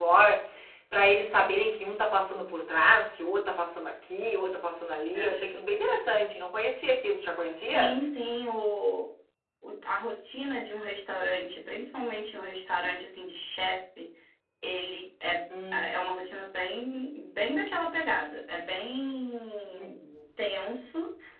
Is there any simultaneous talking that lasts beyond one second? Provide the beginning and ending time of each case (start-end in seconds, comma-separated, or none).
none